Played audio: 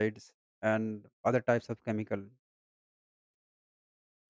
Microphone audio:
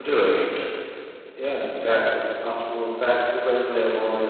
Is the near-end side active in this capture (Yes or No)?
Yes